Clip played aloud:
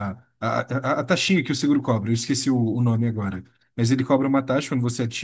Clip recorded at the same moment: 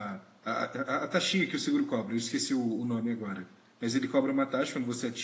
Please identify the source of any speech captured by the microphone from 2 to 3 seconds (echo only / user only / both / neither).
echo only